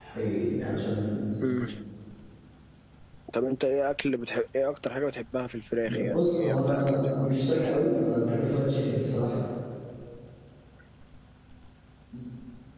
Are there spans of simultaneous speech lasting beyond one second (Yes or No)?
Yes